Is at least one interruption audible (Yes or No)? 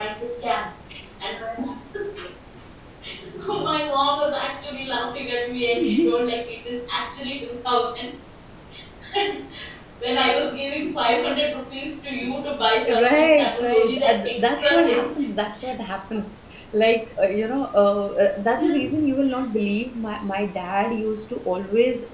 Yes